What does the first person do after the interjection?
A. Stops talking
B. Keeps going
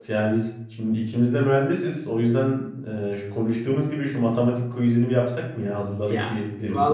A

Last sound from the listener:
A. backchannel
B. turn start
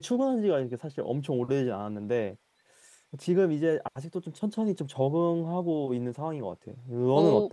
B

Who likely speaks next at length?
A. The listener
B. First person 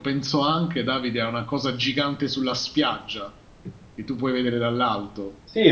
A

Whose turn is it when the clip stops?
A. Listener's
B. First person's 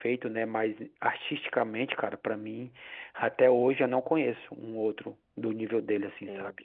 A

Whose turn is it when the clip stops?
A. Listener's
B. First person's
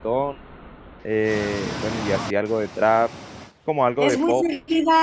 A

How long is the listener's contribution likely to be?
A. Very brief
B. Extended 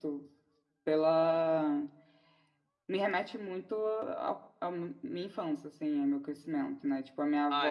A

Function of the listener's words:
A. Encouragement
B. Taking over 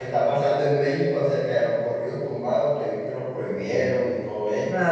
B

